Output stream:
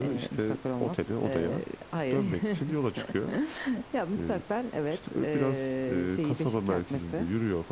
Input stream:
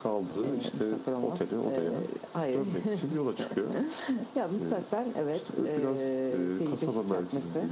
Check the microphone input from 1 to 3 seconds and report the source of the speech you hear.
echo only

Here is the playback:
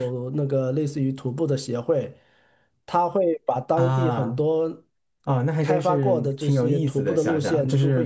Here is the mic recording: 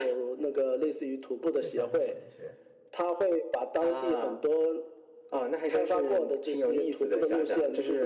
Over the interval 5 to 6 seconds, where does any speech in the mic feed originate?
echo only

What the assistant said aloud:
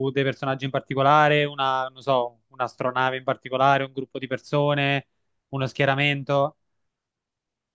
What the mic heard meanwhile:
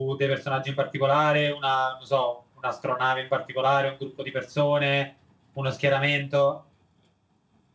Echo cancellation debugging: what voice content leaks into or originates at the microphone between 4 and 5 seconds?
echo only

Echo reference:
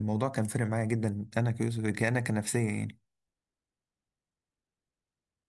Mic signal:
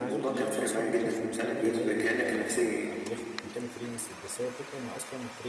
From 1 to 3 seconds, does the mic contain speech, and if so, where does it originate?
both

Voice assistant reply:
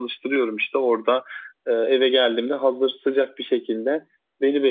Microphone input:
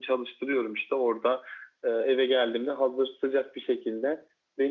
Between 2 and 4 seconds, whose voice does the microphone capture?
echo only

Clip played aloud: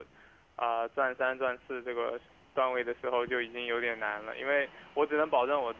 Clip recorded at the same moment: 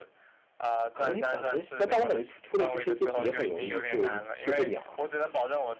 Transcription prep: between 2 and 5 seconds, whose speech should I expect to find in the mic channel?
both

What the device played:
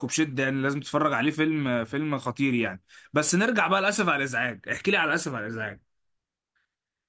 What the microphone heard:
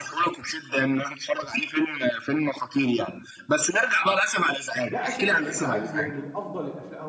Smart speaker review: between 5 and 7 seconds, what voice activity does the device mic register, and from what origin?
both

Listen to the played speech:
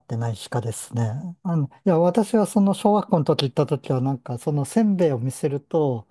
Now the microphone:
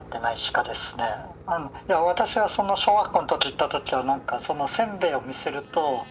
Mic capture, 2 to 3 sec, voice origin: echo only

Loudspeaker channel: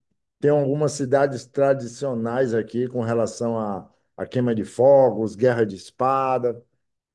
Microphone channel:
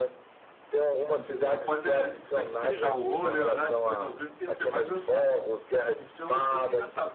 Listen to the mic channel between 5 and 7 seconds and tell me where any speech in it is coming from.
both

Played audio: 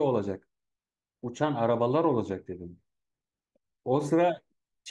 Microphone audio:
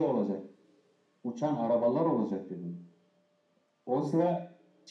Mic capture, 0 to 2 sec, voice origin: echo only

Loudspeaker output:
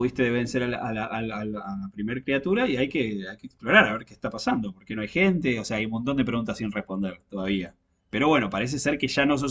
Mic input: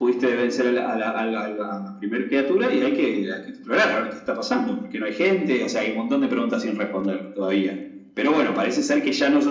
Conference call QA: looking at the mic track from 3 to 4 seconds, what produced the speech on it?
echo only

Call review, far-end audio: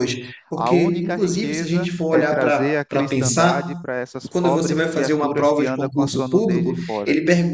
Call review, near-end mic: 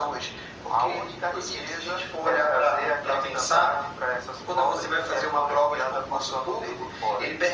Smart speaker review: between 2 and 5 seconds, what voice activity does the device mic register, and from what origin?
echo only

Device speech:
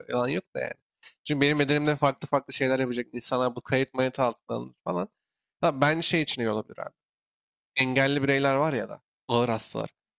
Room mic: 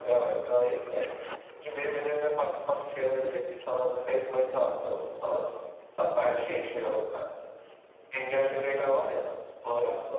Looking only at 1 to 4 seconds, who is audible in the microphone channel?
echo only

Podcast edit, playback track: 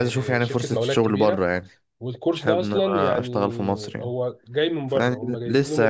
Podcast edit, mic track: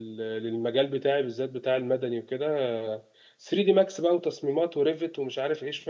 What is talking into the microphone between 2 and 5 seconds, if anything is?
user only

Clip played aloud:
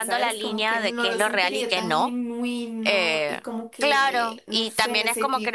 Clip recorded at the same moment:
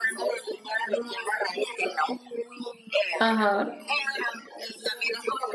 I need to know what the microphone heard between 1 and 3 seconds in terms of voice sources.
echo only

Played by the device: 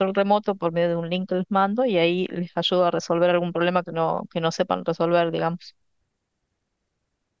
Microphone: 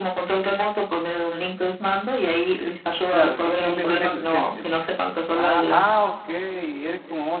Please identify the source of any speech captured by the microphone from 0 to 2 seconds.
echo only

